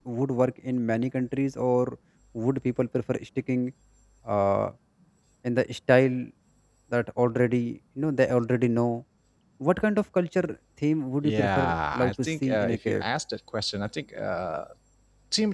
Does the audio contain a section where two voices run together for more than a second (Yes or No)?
Yes